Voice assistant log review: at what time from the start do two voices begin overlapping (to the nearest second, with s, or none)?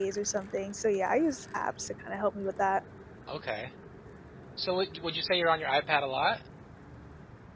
none